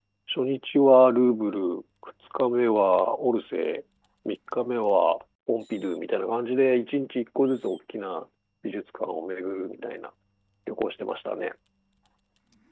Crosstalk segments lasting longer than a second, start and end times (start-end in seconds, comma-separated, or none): none